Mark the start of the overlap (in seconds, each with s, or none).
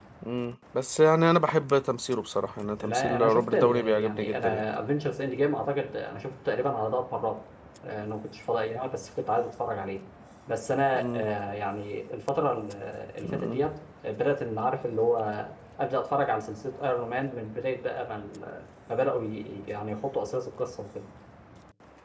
2.8 s